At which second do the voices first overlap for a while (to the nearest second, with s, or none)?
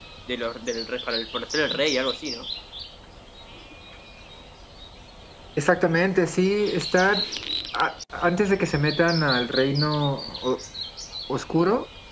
none